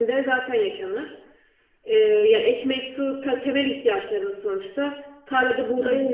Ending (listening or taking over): listening